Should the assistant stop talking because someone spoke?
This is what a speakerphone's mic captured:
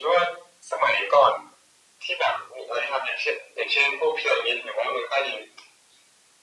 No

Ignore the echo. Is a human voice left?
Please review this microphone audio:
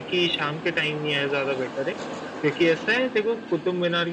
No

